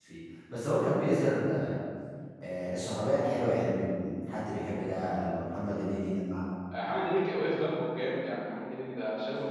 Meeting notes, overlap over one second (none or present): none